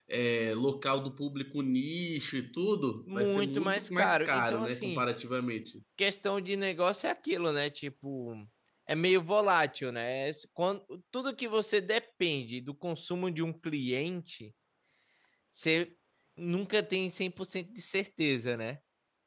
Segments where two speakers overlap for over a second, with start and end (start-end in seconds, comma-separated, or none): 3.1-5.0